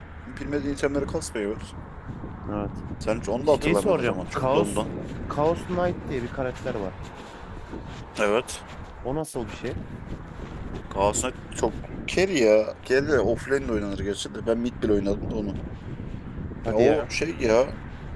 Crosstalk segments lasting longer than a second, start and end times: 3.5-4.8

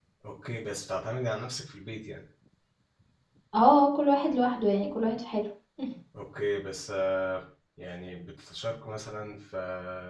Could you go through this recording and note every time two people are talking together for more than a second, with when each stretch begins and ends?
none

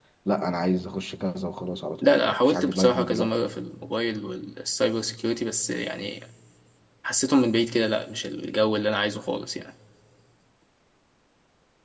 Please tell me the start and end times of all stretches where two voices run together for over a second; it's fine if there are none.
2.0-3.3

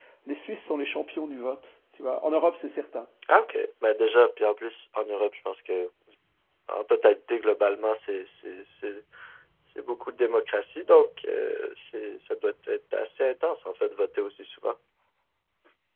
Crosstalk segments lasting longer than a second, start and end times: none

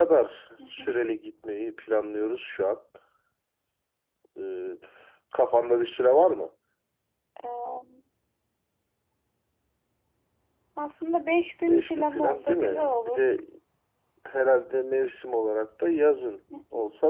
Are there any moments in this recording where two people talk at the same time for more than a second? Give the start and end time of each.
11.7-13.3

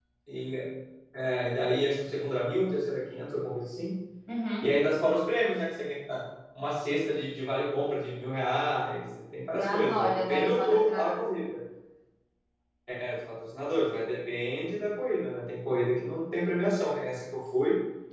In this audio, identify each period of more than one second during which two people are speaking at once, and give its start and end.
9.6-11.2

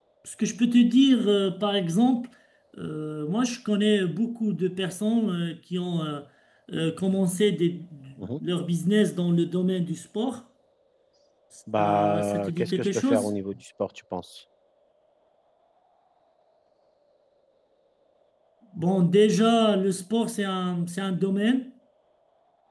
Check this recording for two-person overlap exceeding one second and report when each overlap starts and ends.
11.8-13.3

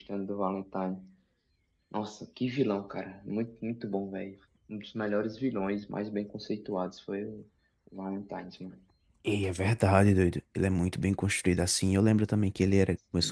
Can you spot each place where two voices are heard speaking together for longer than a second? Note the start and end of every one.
none

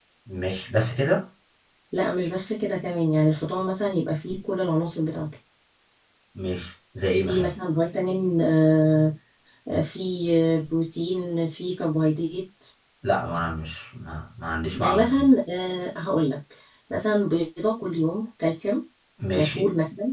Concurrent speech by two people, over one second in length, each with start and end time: none

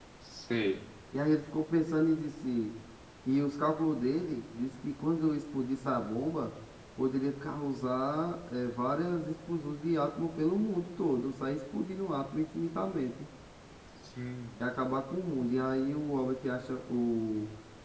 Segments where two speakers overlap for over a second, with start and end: none

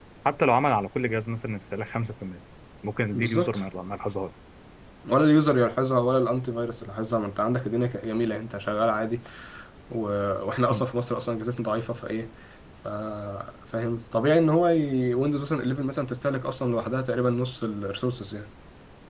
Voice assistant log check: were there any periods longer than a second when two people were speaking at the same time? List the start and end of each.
none

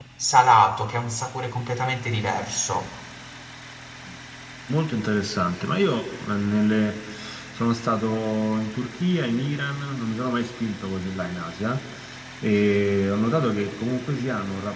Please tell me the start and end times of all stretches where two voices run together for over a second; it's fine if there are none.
none

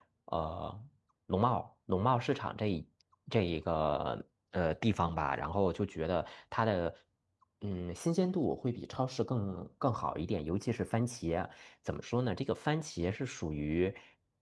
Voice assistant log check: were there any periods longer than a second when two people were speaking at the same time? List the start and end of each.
none

